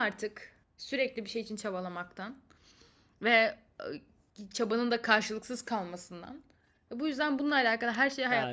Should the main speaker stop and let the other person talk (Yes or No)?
Yes